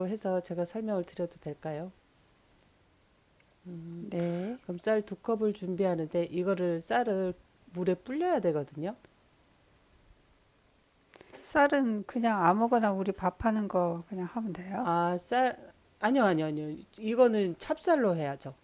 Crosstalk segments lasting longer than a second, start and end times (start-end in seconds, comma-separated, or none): none